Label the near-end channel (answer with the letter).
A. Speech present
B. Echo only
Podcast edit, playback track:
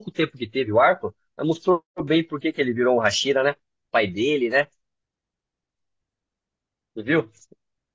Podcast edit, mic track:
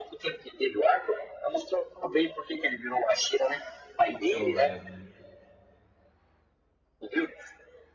A